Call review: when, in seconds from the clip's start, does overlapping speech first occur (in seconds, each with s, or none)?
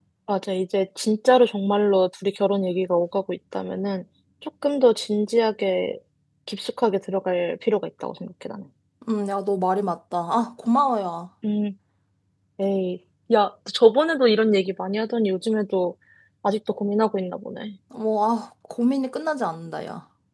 none